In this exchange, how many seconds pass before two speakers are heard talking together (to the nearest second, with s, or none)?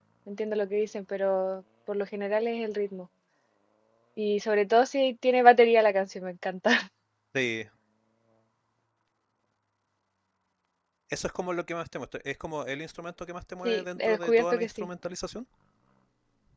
14 s